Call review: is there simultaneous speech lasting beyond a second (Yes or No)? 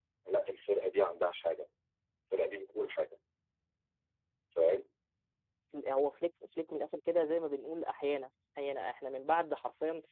No